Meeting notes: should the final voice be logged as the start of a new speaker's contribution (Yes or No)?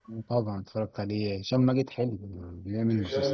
Yes